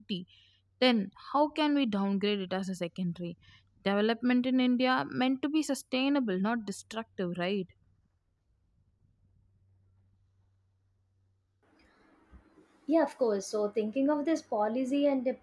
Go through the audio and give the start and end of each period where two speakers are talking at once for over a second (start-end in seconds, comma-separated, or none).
none